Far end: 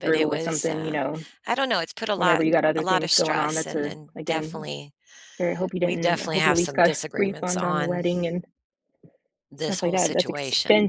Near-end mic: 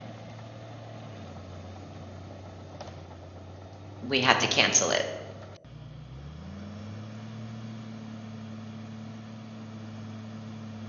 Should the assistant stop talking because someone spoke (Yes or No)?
Yes